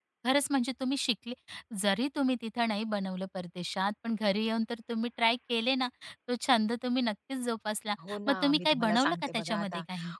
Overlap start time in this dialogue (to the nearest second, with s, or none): 8 s